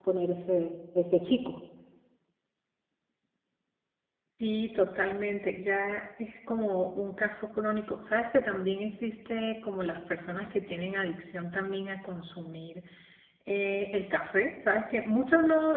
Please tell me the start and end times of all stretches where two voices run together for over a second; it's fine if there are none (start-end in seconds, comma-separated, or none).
none